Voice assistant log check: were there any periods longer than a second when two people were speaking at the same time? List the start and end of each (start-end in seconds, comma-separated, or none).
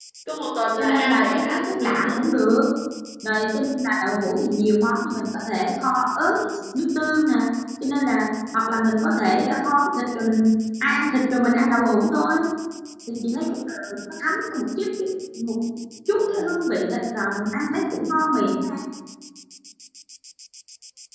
0.8-2.1